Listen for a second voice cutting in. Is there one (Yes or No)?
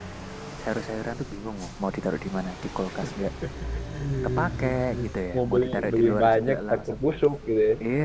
Yes